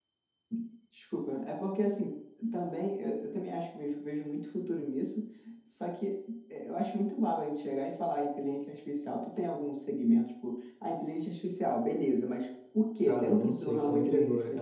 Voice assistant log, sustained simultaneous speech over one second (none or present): present